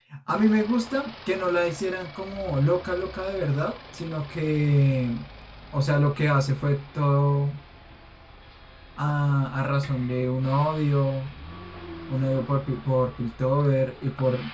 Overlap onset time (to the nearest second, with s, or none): none